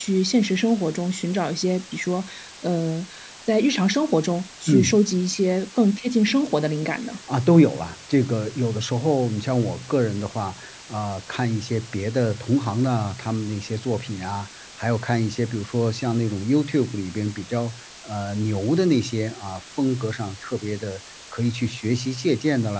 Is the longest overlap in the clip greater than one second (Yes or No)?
No